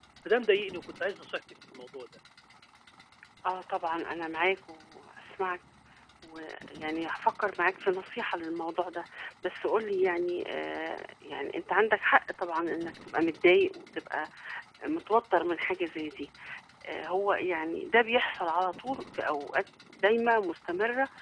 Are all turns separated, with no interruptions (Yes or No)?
Yes